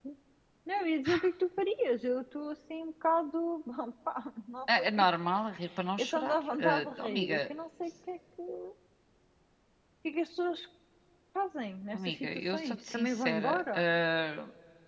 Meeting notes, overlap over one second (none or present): present